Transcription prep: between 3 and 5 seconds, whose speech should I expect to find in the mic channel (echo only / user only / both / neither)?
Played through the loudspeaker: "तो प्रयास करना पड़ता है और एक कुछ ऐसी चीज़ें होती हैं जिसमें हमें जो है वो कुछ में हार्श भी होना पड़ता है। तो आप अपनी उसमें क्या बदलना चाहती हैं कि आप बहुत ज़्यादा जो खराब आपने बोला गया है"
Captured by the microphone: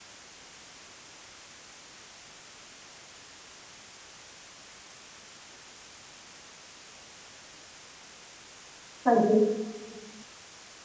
neither